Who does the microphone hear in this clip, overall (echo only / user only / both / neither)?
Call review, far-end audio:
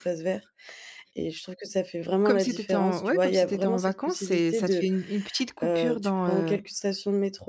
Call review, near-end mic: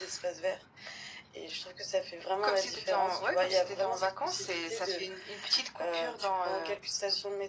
echo only